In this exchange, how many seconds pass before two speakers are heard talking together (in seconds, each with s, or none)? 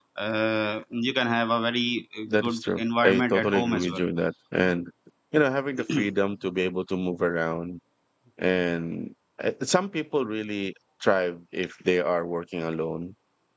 2.2 s